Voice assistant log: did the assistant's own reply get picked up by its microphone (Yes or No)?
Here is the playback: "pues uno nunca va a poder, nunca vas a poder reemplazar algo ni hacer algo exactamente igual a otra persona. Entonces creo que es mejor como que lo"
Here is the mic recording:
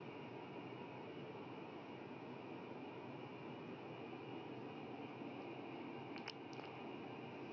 No